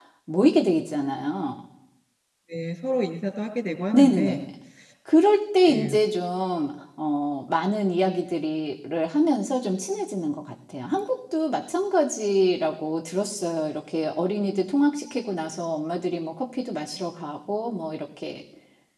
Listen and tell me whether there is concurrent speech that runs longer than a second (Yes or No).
No